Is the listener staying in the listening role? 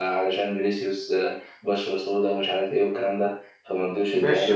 No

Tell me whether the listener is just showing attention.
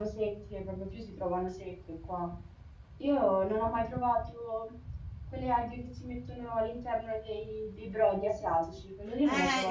No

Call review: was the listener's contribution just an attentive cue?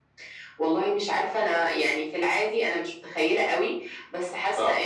Yes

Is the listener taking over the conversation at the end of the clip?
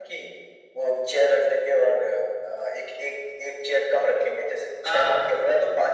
No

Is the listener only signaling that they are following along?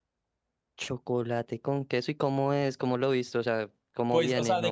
No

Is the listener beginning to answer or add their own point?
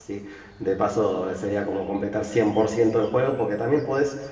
No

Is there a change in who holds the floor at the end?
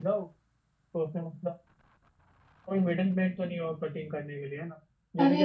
Yes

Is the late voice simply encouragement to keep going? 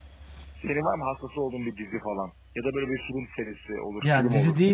No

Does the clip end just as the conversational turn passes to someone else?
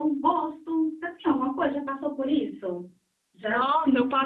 Yes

